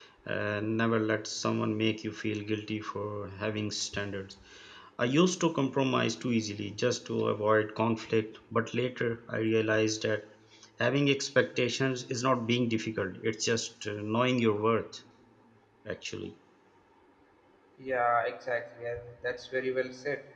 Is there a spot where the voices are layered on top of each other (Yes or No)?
No